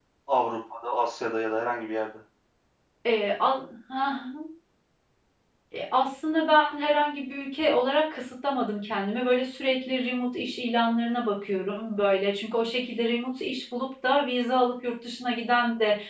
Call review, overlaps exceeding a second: none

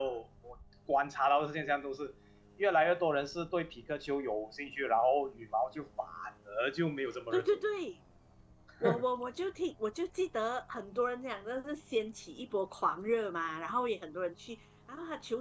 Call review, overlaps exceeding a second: none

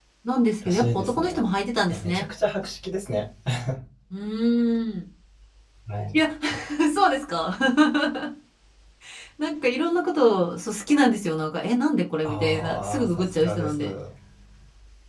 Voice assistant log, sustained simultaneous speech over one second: present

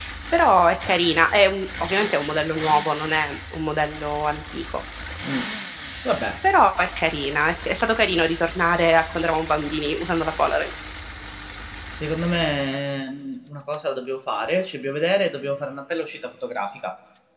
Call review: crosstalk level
none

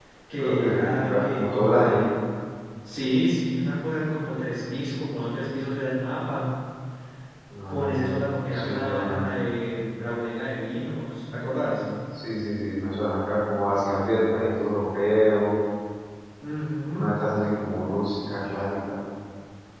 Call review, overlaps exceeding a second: present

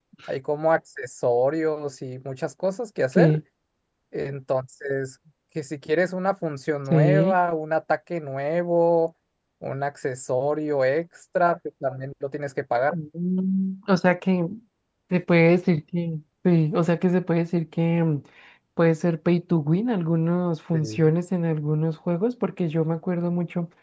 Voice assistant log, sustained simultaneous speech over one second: none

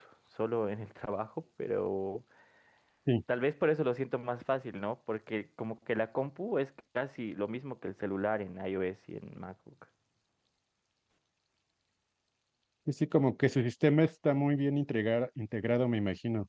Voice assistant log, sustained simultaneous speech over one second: none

